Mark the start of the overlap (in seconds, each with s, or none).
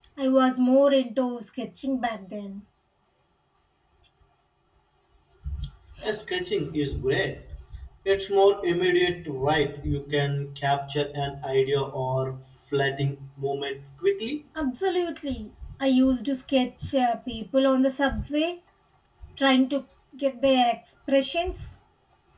none